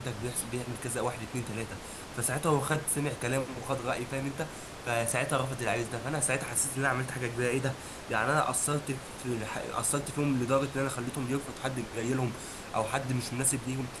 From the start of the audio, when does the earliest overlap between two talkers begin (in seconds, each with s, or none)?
none